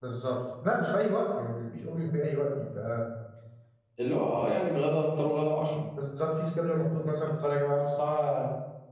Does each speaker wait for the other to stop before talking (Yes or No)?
Yes